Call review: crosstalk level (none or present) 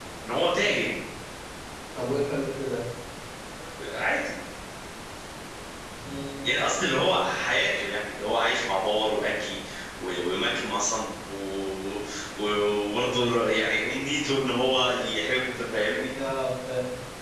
none